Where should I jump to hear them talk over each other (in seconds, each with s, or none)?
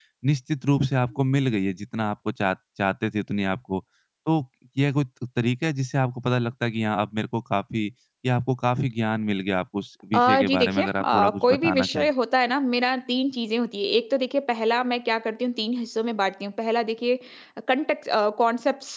10.1 s